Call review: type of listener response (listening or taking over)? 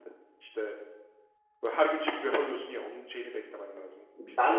taking over